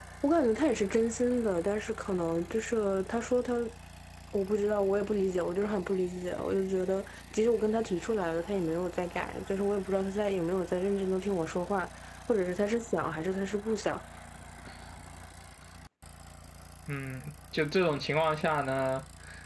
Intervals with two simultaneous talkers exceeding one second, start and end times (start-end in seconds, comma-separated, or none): none